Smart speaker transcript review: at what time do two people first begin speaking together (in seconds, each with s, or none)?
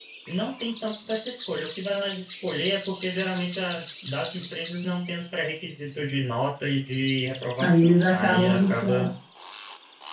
7.6 s